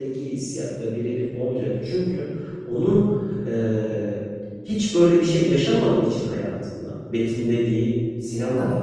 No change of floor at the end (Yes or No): Yes